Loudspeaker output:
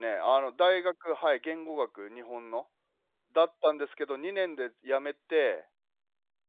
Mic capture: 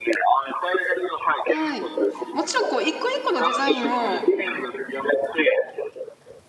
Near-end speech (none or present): present